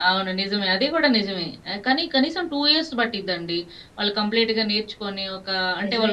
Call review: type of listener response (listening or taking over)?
taking over